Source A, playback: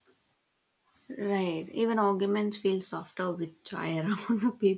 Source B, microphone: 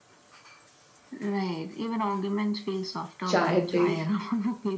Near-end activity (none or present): present